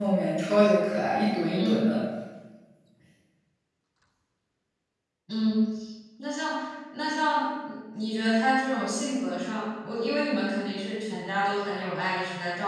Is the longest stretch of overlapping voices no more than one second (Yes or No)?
Yes